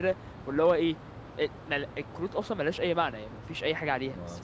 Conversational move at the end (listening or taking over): listening